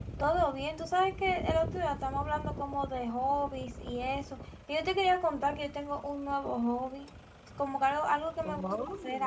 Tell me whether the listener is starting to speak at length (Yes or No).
No